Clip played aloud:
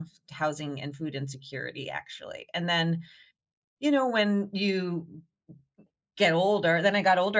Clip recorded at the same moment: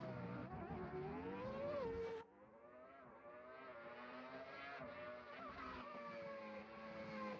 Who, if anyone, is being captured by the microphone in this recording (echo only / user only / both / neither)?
neither